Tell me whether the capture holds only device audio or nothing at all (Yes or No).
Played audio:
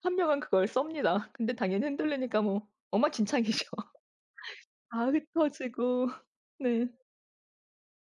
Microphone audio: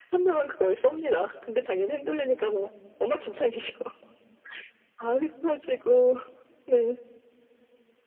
Yes